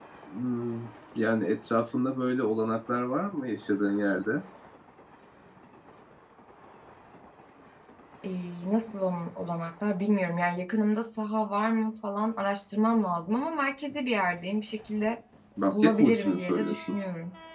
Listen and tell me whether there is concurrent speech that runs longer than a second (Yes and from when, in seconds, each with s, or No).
Yes, from 15.7 s